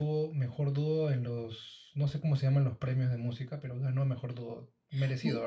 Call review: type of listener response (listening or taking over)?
taking over